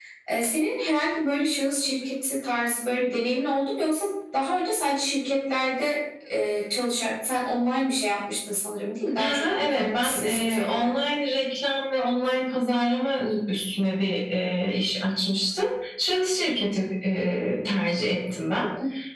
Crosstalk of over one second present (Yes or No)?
Yes